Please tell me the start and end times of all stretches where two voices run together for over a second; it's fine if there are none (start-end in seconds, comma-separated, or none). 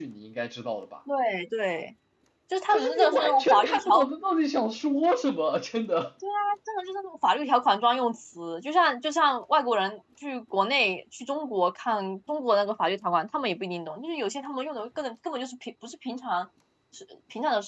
2.7-4.1